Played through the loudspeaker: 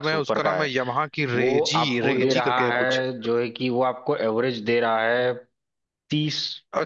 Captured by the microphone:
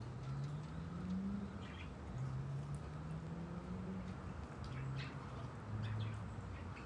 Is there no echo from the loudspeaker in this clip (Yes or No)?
Yes